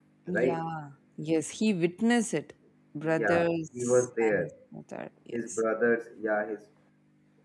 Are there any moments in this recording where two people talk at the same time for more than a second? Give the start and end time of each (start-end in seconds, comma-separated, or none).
3.0-4.5